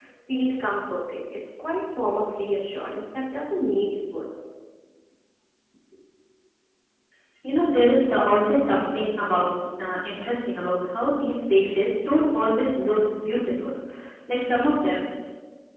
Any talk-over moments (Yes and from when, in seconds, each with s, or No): No